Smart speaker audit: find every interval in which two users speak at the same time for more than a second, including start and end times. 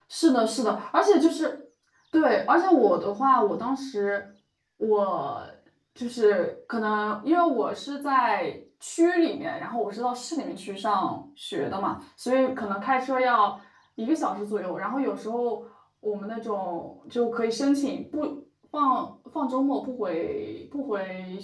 none

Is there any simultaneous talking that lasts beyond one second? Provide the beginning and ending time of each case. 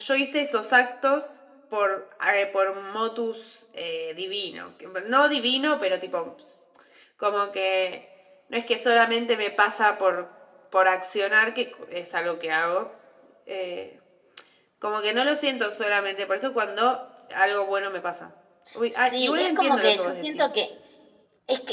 19.0-20.4

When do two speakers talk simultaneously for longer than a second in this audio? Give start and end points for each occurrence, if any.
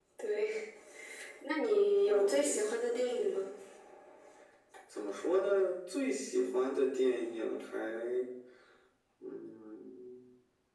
2.0-3.5

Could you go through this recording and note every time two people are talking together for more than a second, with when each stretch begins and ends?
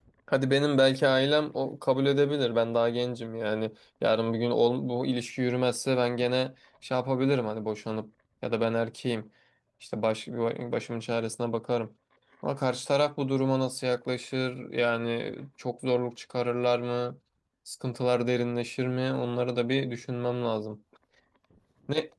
none

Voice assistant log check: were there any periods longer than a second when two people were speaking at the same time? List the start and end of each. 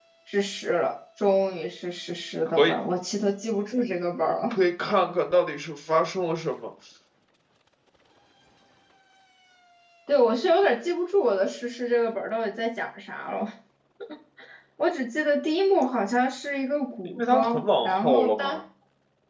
17.0-18.6

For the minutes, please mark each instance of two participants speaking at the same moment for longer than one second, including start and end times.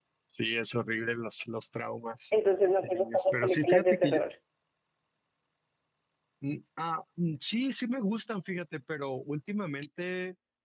2.8-4.2

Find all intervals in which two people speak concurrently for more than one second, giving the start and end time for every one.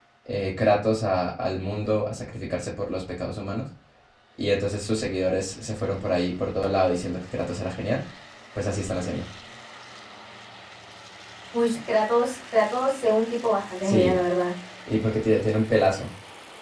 none

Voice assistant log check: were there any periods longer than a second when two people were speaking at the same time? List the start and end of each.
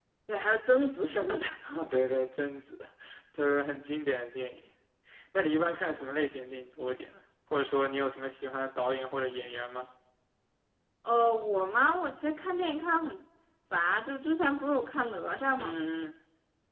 none

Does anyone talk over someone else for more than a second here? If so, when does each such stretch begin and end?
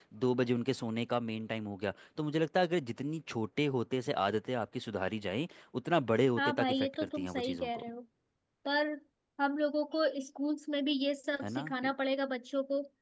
6.4-7.8

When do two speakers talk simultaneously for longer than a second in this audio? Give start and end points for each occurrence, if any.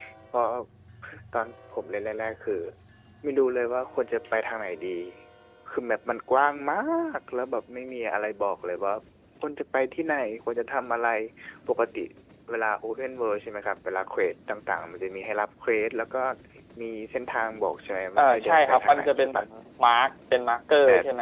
18.2-19.4

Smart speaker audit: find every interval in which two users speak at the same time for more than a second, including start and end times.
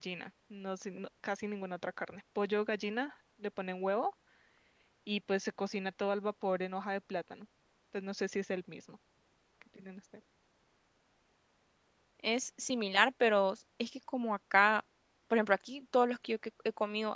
none

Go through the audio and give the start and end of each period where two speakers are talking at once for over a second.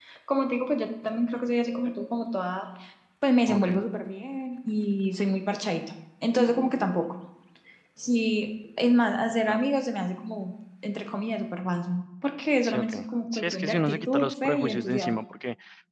13.3-15.2

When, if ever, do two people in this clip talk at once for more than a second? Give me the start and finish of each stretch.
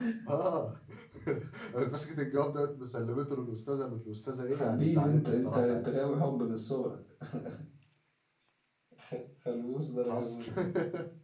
4.5-5.8

